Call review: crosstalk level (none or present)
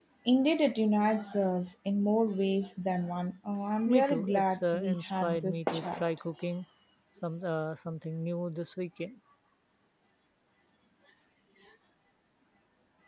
present